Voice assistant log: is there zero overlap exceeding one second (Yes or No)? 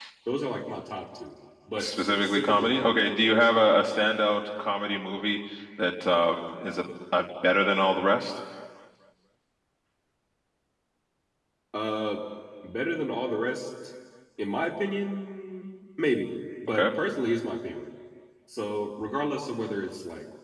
No